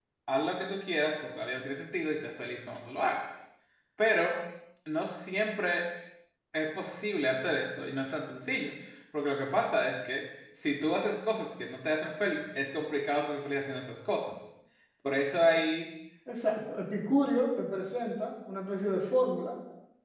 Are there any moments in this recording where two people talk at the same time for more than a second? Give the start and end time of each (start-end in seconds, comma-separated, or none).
none